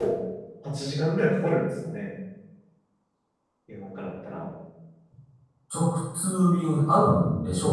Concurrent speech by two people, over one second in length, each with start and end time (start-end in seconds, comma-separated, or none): none